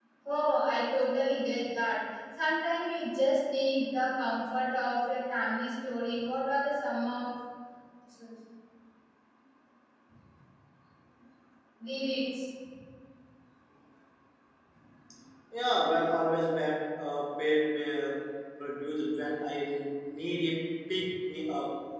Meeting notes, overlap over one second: none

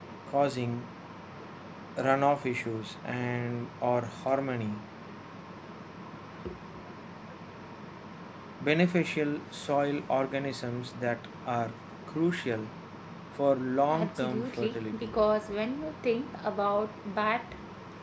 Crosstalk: present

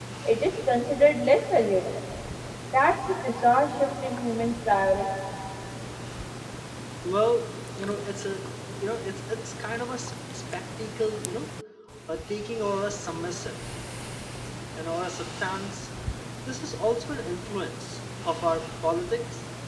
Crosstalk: none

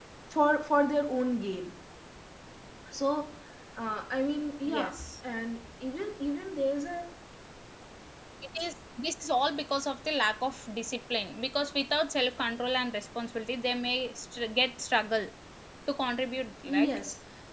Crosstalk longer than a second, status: none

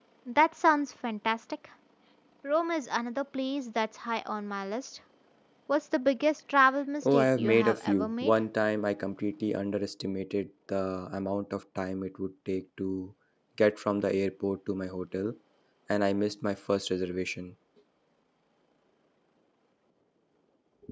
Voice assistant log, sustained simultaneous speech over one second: present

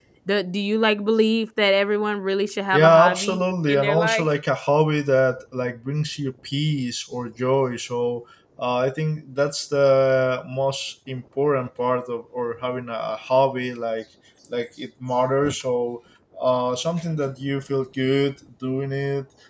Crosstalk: present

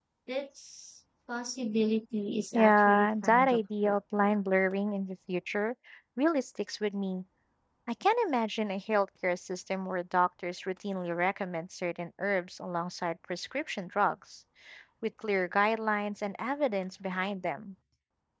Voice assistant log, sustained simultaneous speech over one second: present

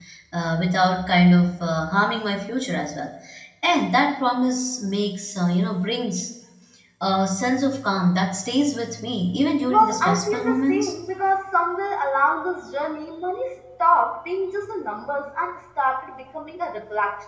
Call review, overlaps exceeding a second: present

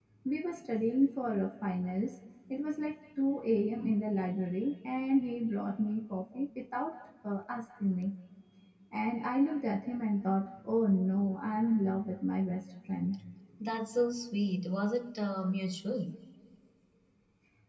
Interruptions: none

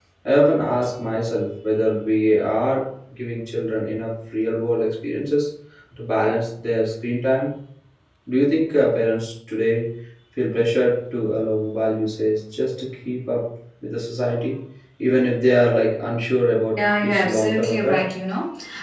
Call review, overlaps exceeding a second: present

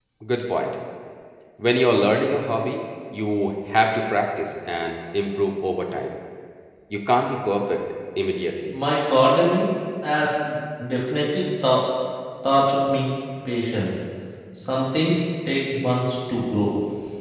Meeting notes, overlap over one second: none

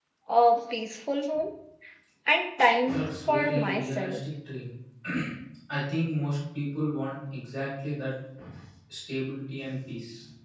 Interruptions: present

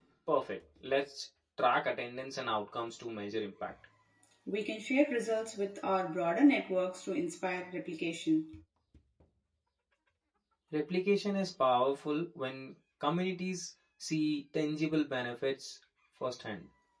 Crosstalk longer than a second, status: none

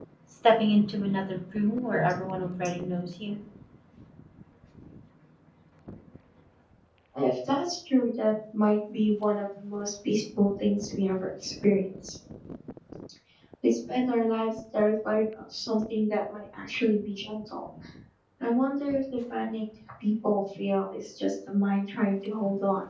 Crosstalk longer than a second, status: none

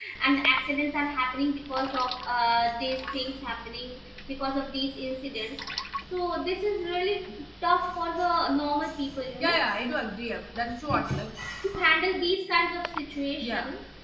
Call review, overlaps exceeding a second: none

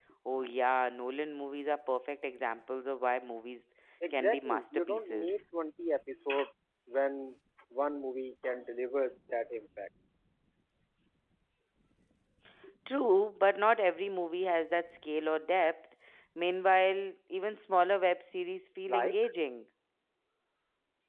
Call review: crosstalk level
present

